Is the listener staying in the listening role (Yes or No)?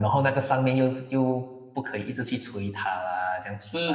No